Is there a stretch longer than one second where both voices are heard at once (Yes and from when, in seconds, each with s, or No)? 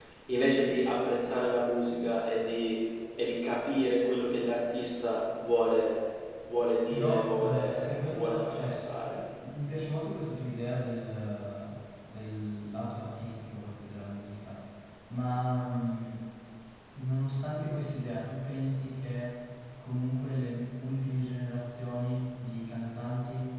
Yes, from 6.9 s